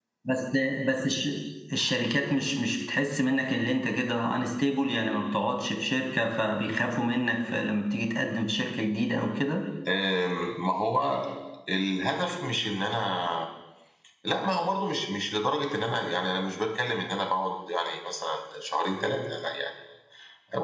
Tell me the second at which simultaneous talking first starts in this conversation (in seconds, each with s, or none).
none